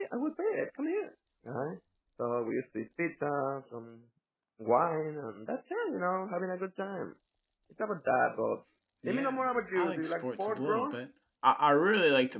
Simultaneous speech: Yes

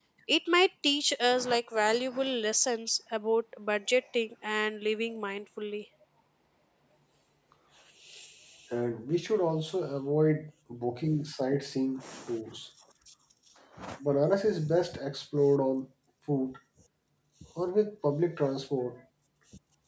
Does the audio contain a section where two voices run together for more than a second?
No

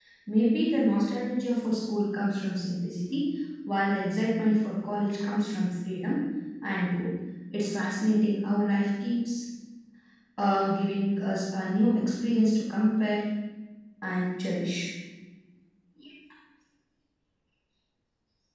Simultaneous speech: No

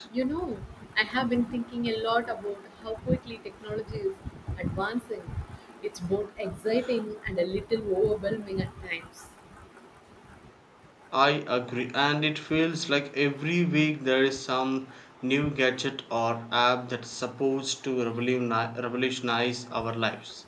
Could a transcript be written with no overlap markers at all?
Yes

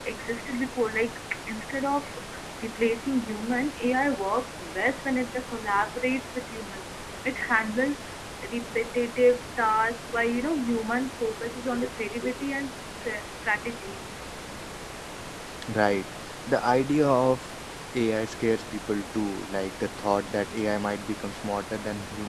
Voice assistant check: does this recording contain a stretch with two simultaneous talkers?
No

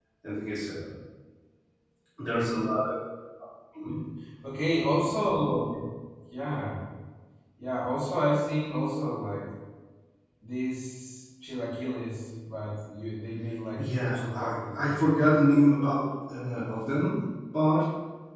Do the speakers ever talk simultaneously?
Yes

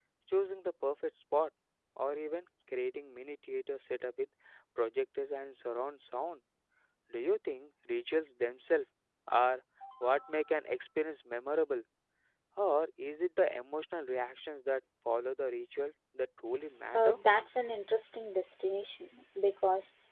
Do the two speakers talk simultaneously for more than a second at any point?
No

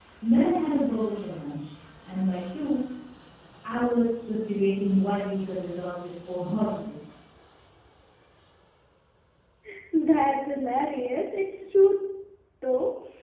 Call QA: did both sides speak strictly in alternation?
Yes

